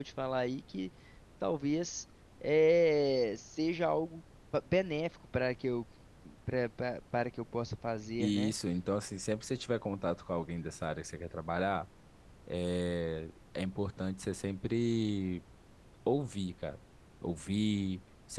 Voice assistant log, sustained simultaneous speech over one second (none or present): none